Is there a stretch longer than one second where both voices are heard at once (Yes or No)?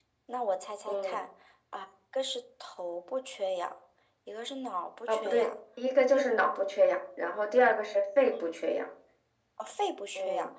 No